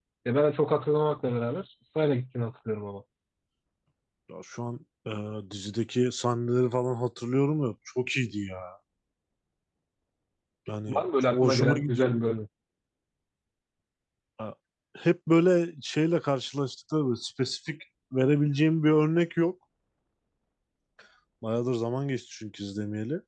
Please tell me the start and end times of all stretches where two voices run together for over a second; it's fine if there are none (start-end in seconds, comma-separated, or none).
10.9-12.2